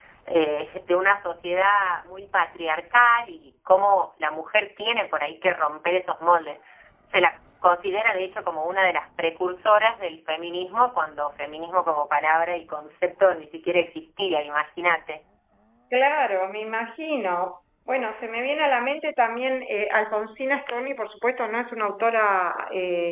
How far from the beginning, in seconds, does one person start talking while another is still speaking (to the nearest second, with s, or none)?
none